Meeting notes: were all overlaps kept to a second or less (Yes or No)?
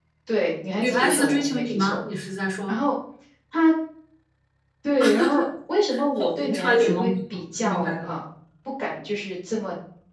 No